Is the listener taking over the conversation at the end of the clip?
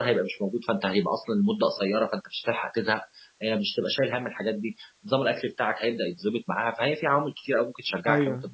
Yes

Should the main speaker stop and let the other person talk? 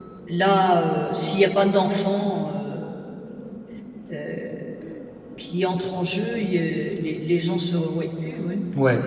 Yes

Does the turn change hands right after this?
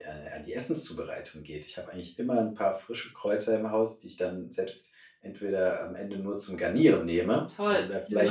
Yes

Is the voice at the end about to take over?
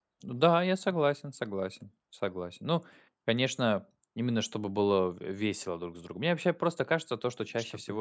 No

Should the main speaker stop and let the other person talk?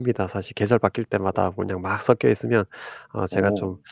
No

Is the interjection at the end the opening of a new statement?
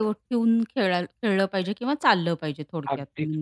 Yes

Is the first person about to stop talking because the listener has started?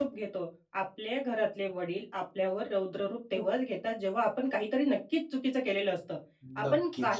No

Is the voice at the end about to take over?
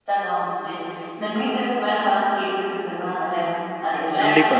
No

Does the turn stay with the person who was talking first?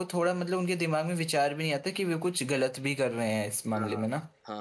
No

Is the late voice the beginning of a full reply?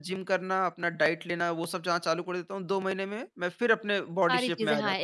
Yes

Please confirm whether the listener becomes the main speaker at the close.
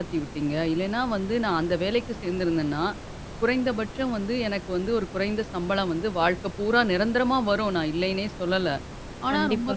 No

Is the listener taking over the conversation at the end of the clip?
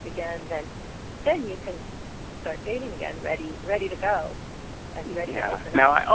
Yes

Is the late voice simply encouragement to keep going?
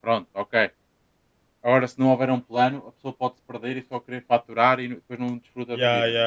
No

